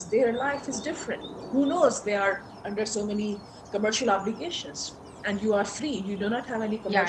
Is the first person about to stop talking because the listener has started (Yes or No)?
No